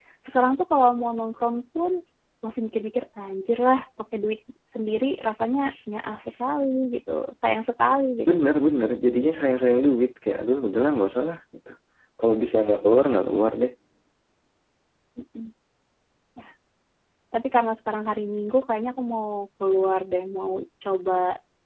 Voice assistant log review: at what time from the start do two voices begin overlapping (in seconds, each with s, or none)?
none